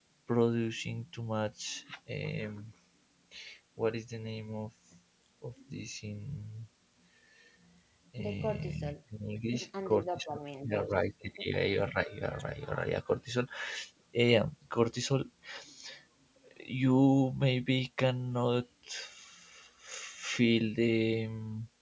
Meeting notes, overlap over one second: present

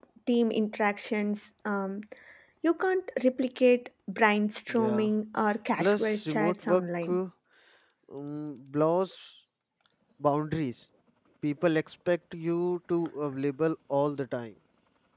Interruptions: present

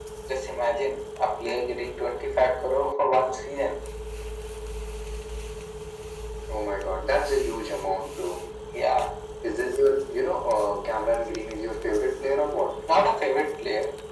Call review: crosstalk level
none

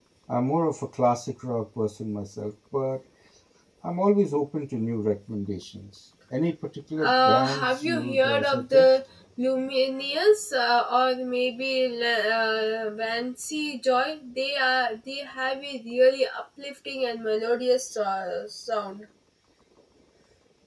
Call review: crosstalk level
present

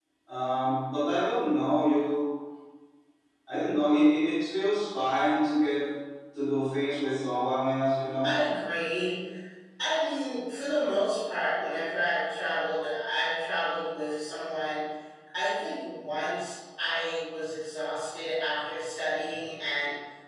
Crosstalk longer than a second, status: none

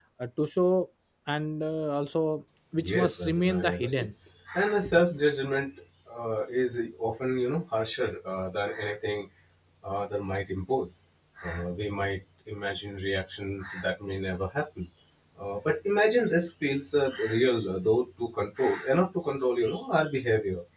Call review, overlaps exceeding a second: present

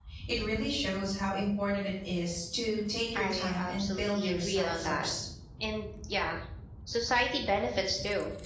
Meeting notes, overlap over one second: present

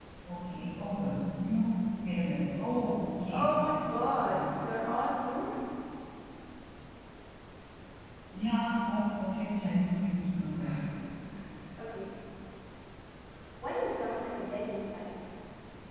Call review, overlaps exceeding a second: present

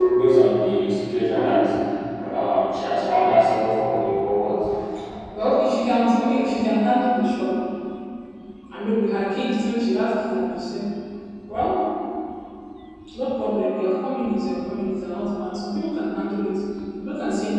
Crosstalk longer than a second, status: none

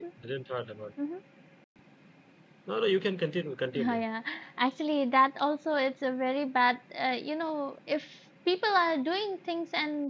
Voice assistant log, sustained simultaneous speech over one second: none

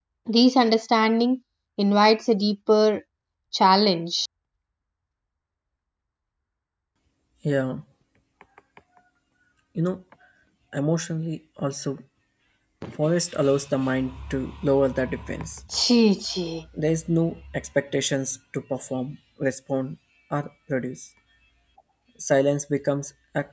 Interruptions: none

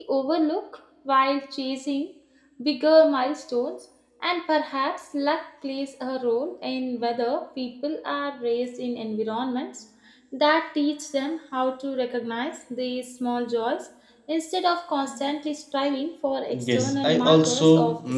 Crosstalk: present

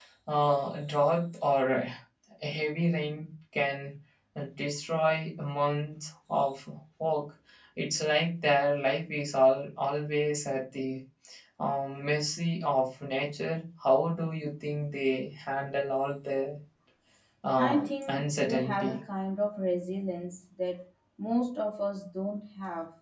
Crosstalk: present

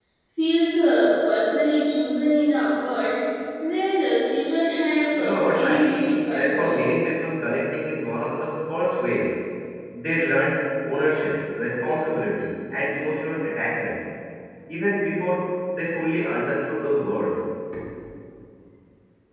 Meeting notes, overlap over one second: present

